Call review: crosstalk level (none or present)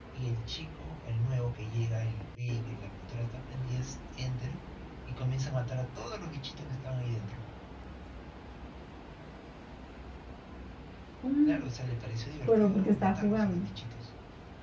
present